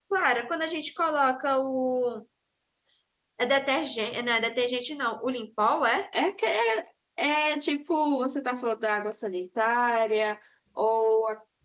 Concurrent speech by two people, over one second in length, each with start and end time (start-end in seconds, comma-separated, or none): none